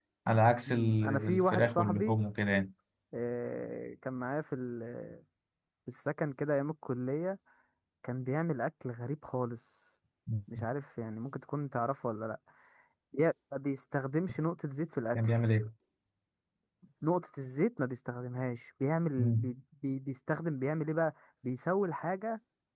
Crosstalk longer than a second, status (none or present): present